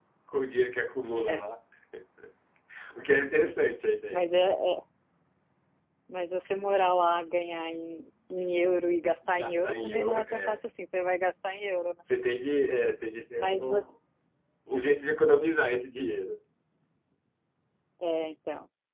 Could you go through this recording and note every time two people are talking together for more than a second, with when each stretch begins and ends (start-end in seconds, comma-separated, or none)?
9.3-10.6